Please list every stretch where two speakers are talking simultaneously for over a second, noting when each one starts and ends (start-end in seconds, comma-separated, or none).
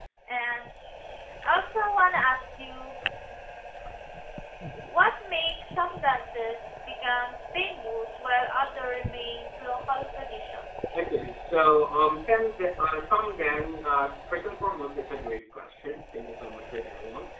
none